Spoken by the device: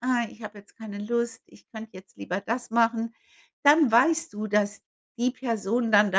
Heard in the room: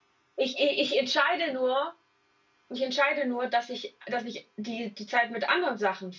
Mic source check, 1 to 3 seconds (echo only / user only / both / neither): user only